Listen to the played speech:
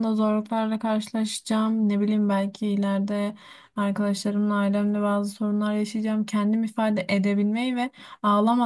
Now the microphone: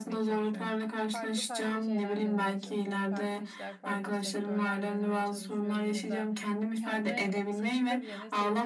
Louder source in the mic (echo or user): echo